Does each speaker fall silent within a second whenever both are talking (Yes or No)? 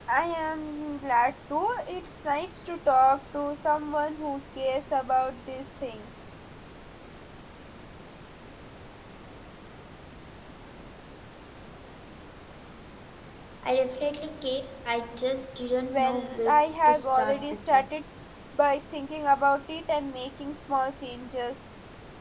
No